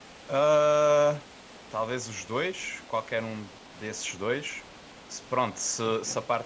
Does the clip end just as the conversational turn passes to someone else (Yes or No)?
No